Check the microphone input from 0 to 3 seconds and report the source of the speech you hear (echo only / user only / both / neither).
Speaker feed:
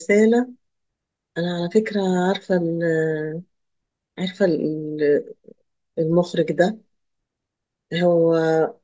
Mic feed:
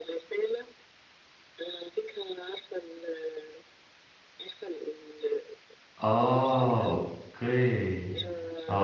echo only